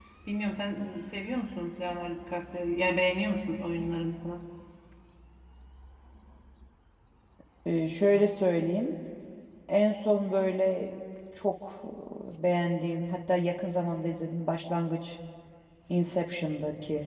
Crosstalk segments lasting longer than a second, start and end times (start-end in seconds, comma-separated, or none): none